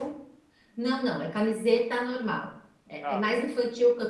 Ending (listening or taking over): listening